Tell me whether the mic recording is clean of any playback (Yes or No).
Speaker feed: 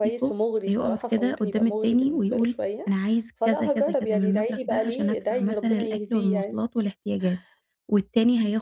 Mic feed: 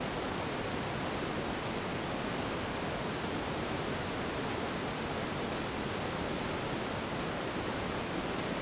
Yes